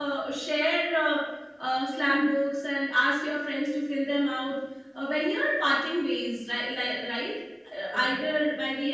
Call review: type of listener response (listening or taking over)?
listening